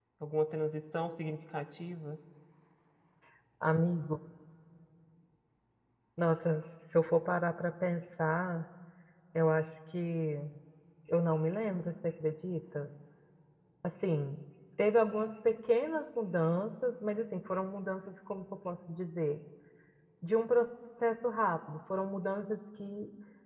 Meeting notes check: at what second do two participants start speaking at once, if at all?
none

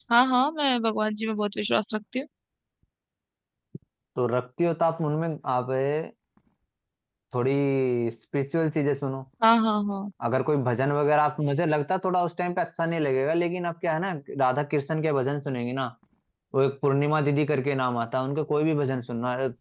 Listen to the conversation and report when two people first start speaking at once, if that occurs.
none

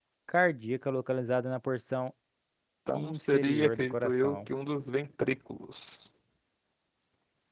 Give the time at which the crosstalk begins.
2.9 s

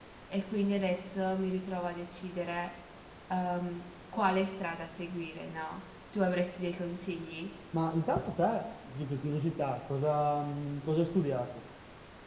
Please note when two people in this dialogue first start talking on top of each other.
none

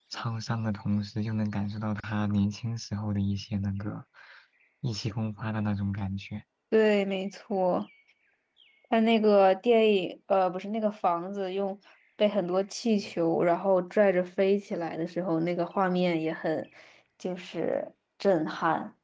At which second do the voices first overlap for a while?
none

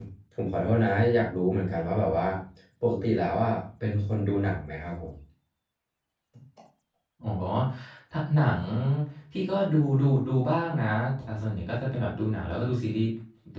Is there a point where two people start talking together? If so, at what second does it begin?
none

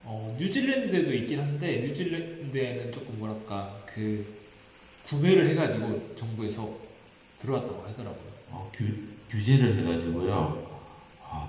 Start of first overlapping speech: none

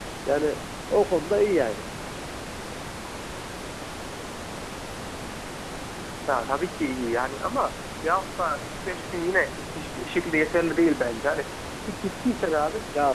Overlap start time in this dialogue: none

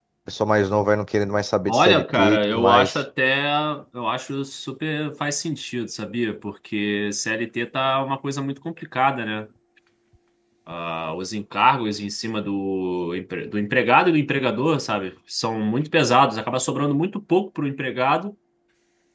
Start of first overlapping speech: 1.7 s

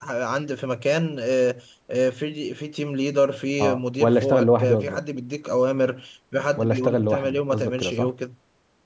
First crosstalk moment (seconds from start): 3.6 s

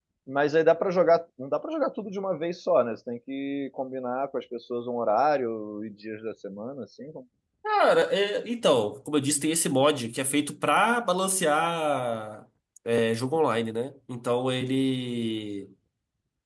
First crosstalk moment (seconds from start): none

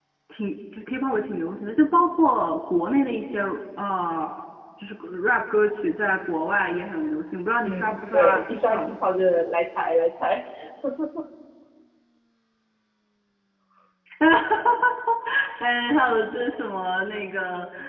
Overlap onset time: 7.6 s

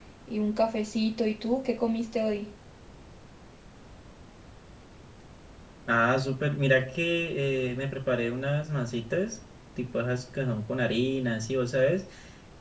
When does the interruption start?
none

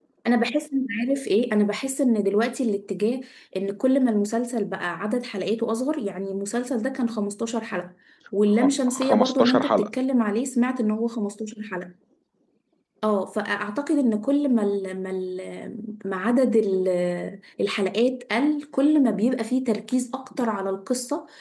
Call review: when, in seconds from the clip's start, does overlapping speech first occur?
8.6 s

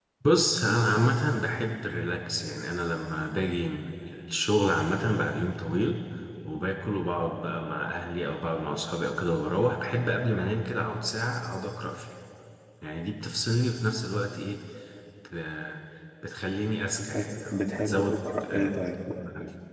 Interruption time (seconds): 16.9 s

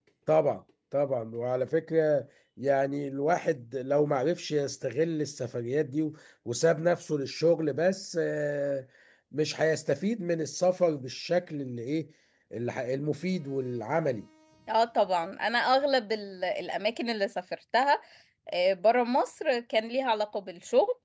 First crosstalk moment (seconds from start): none

